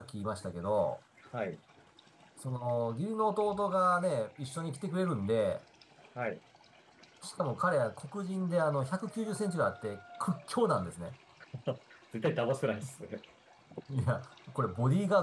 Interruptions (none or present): none